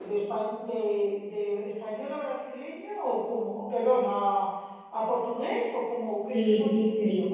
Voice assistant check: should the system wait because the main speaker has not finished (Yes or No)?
No